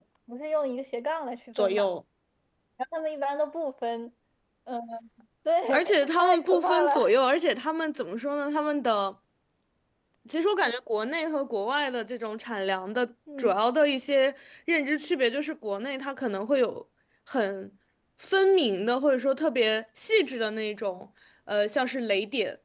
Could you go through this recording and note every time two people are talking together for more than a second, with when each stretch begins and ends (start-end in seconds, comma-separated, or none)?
5.7-7.0